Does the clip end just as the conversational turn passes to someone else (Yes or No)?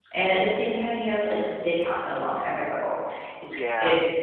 No